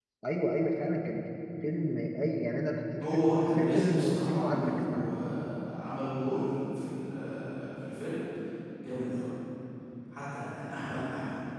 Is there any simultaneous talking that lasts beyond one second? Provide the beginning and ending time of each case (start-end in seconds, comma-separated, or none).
3.0-5.1